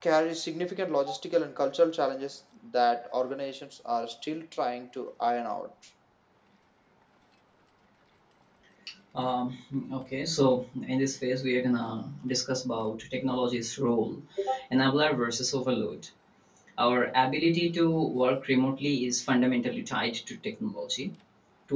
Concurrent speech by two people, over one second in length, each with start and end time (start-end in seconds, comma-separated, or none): none